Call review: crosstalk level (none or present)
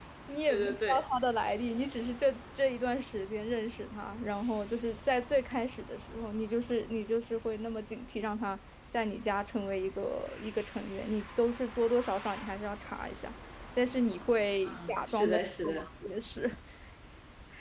present